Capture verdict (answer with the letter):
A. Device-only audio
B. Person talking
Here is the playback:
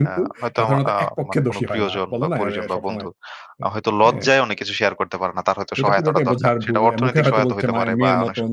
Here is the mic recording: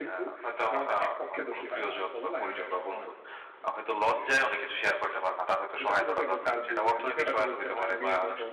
A